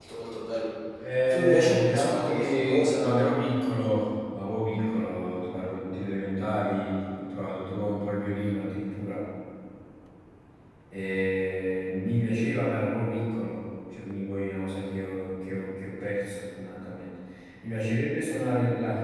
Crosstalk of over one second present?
Yes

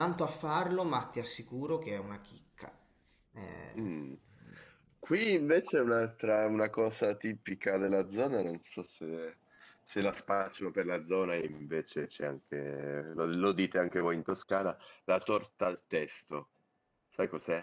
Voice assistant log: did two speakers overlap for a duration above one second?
No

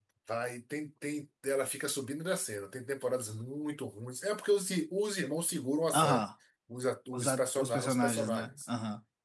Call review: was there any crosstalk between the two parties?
Yes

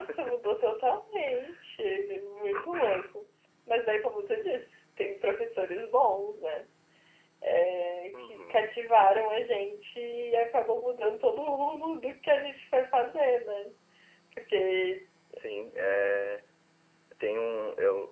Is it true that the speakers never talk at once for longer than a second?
Yes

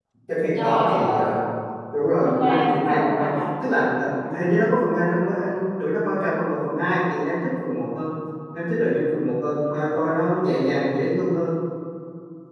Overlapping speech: Yes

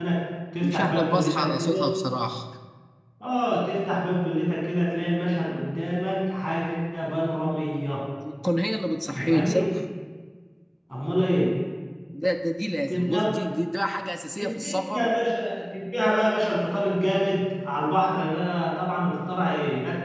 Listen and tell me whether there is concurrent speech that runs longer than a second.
Yes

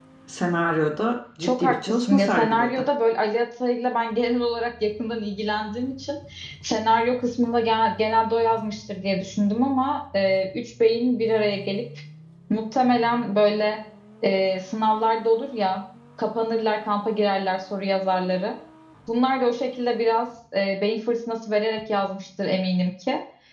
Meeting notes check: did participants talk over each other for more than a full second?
Yes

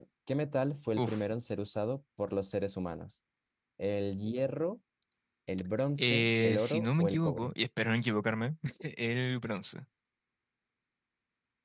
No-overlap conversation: No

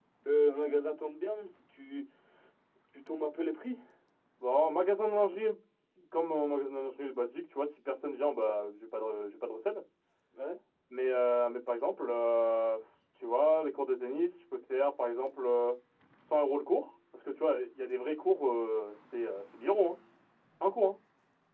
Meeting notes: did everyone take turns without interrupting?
Yes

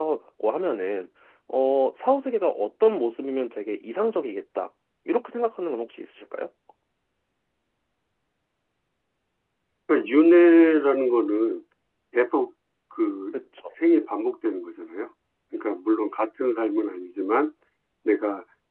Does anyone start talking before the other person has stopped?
No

